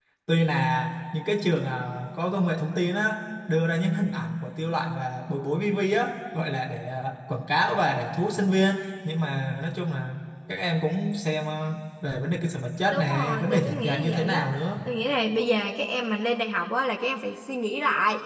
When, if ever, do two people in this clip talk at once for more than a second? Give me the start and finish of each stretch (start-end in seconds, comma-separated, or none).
12.9-14.5